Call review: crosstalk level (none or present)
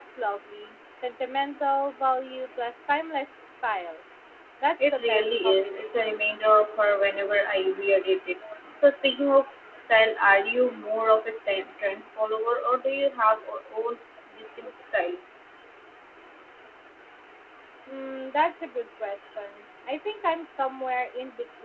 present